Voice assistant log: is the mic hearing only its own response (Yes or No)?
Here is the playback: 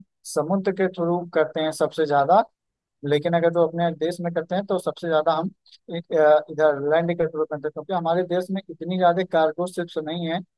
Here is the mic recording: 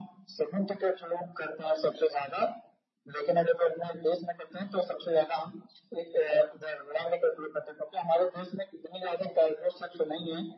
Yes